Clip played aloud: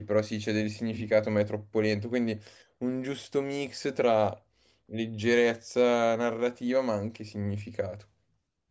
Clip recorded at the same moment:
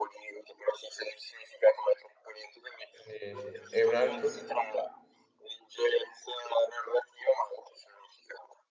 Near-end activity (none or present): present